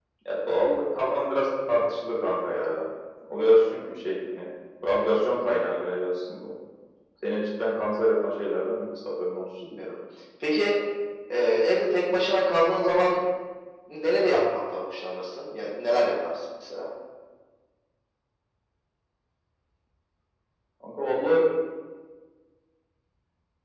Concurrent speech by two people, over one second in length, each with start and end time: none

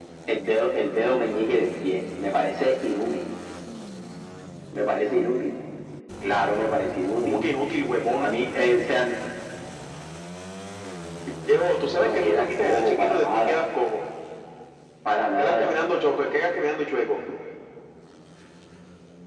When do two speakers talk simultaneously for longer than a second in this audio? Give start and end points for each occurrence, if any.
12.0-13.6

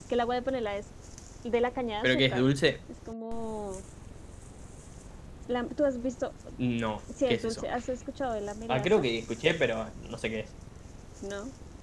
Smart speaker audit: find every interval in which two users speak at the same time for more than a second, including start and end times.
none

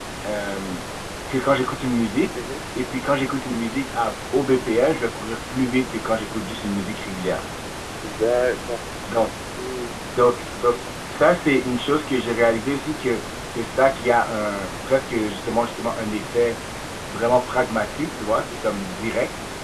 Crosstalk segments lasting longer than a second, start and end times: none

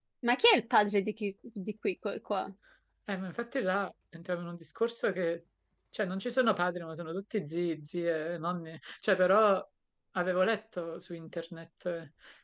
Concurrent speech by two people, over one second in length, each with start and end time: none

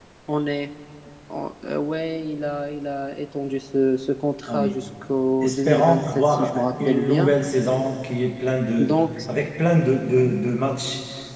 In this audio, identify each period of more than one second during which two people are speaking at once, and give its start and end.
5.4-7.3

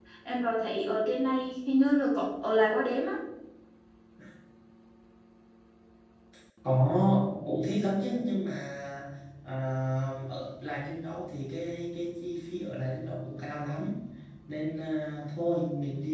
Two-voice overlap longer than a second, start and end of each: none

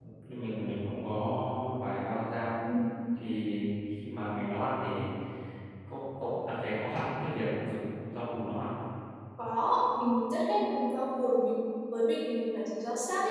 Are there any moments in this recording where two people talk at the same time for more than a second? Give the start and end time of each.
none

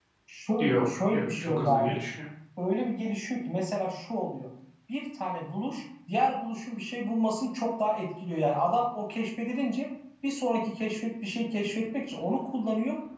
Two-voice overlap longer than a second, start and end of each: 0.6-2.0

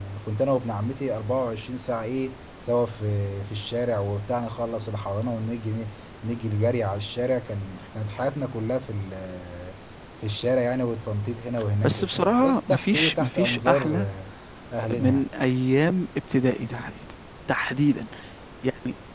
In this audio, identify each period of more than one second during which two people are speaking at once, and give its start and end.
11.8-14.1

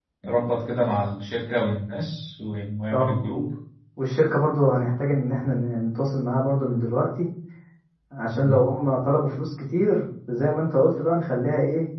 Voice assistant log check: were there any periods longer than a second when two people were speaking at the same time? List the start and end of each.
none

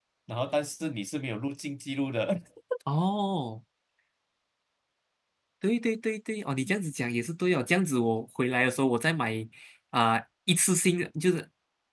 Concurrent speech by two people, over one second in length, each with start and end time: none

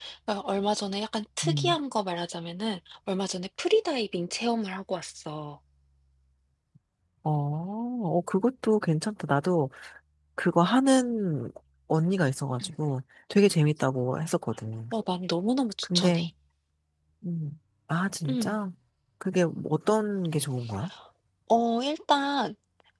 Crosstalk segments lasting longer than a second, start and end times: none

